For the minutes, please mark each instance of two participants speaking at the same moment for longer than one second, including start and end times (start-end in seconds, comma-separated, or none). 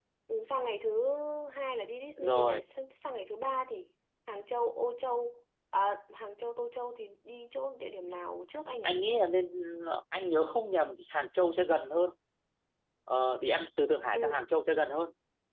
none